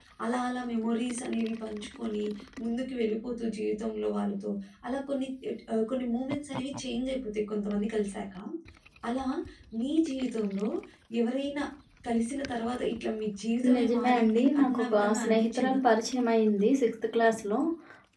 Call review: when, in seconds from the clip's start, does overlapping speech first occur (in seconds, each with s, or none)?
13.6 s